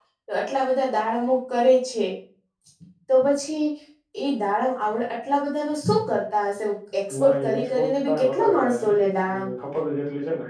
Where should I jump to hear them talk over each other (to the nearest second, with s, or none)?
7 s